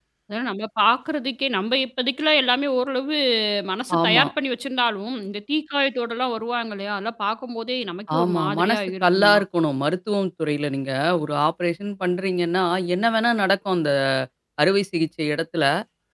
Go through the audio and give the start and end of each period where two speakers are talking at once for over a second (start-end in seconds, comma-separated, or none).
8.2-9.4